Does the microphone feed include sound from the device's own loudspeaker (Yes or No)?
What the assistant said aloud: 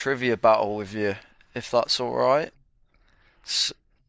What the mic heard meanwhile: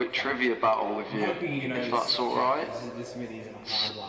Yes